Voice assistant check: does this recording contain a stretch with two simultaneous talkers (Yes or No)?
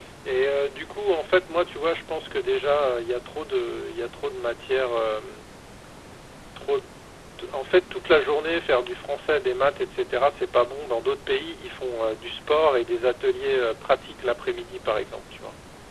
No